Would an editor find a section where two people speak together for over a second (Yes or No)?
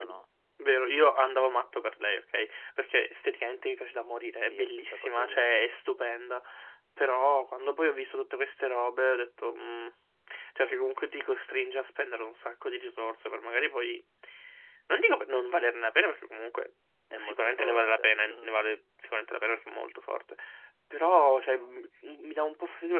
Yes